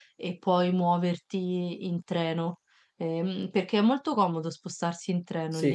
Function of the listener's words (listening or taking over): taking over